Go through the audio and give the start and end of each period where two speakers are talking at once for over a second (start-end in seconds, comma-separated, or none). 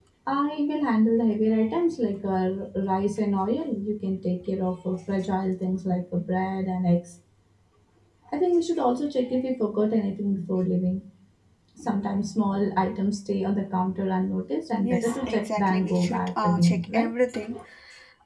14.8-17.1